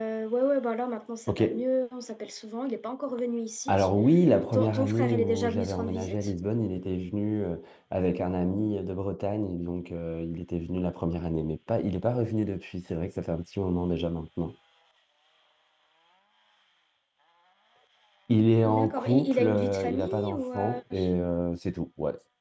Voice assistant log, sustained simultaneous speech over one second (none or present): present